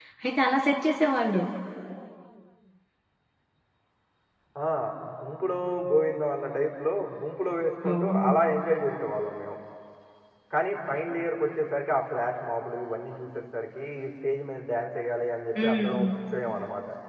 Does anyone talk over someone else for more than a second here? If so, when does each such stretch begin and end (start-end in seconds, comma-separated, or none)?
none